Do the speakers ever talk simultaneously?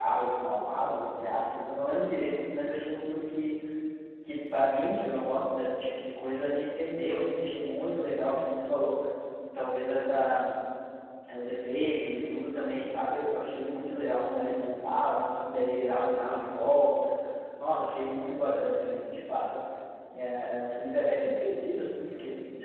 No

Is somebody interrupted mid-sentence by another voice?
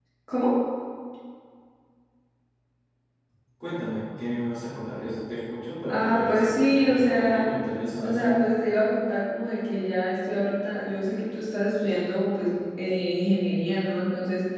Yes, from 5.9 s

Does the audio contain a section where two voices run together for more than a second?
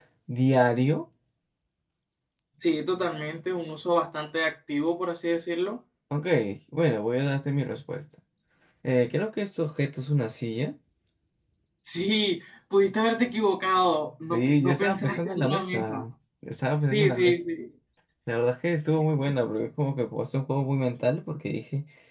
Yes, from 14.3 s

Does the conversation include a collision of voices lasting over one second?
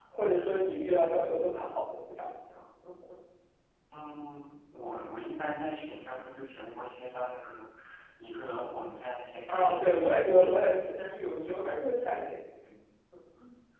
Yes, from 9.5 s

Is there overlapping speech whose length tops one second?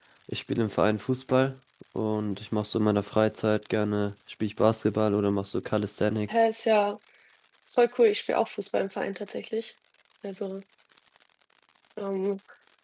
No

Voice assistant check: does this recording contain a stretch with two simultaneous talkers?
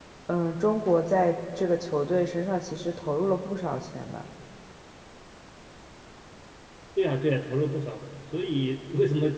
No

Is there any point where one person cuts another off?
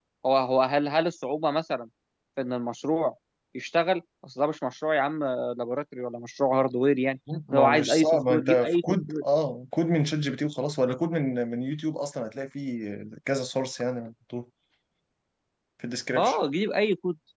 Yes, from 7.3 s

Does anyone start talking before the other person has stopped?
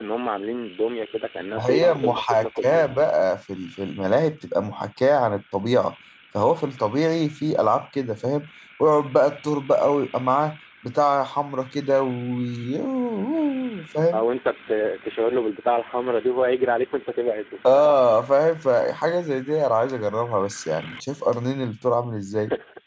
Yes, from 1.6 s

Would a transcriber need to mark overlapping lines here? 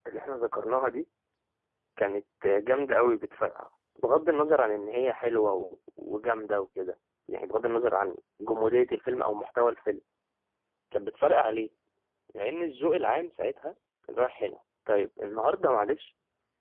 No

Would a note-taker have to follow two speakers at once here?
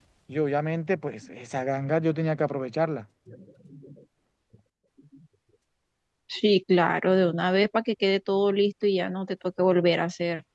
No

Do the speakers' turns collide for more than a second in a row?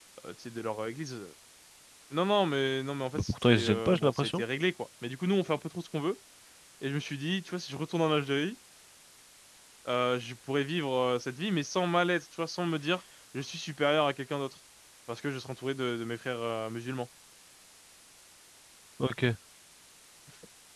Yes, from 3.1 s

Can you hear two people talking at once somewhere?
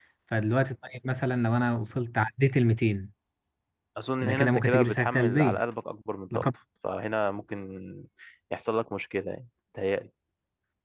Yes, from 4.2 s

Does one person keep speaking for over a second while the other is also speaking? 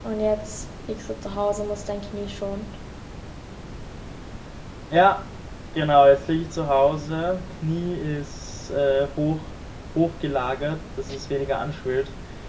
No

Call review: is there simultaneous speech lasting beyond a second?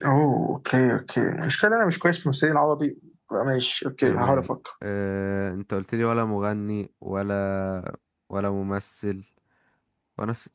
No

